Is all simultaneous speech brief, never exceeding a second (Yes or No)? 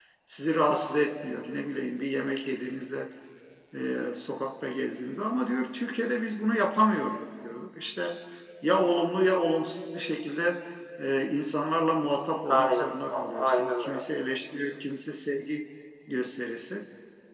No